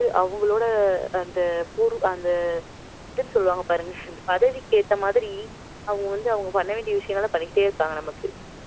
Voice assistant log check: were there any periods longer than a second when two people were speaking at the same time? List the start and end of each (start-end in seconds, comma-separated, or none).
none